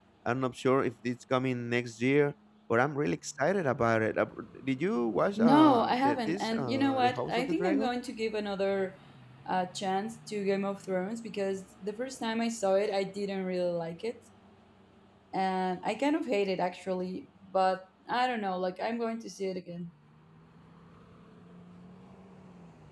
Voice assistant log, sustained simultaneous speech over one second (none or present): present